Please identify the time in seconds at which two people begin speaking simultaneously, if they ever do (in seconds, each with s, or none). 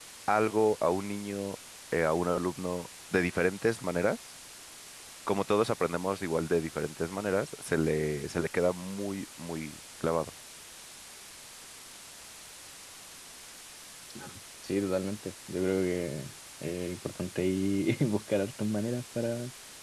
none